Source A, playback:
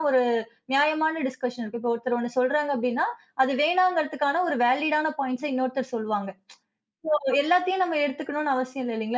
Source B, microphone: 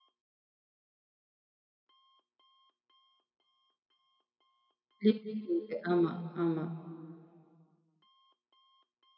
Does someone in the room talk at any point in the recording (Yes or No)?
Yes